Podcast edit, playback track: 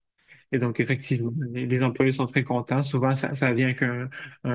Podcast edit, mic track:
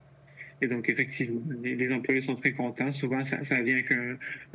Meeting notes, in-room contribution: none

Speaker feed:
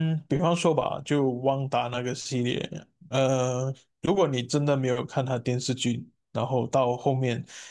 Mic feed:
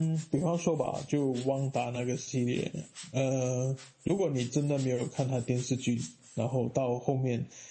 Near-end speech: none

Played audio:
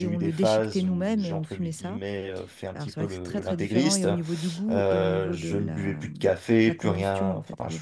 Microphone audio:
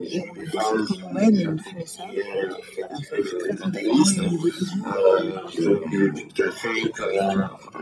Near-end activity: none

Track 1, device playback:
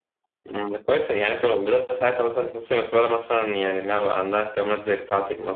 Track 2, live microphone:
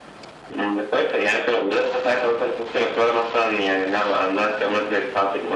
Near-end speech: none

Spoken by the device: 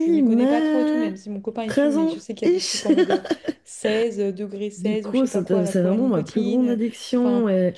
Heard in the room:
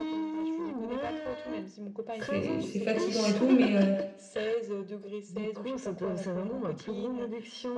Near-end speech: present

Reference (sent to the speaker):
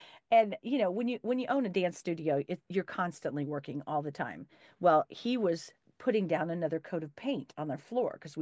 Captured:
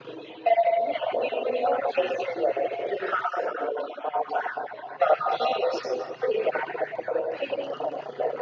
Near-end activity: none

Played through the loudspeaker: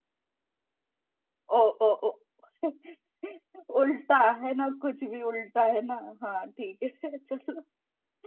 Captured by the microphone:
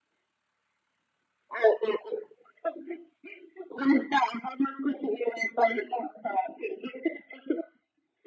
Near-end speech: none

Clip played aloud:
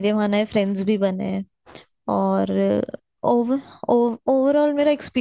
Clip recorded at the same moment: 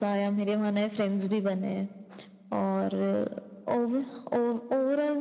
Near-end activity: none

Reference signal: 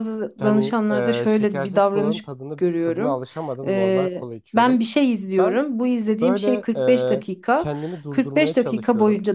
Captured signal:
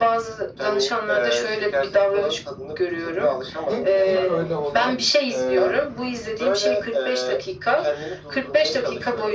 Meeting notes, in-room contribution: present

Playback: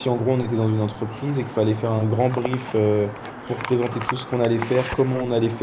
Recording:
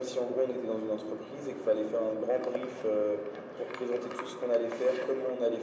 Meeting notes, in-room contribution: none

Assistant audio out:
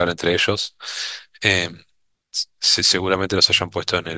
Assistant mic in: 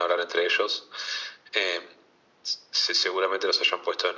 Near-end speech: none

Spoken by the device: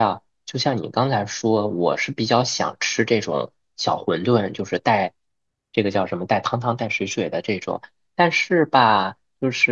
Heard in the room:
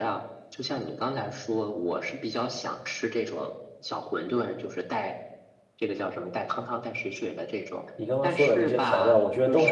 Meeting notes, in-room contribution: present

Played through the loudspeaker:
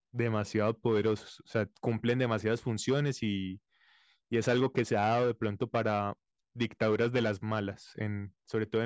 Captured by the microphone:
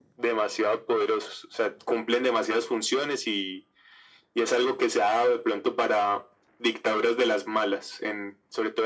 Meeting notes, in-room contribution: none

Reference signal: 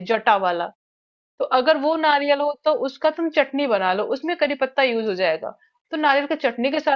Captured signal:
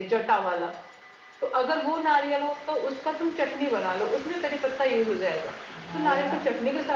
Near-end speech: present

